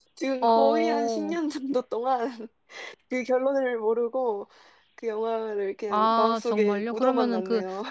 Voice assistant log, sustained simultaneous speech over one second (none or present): present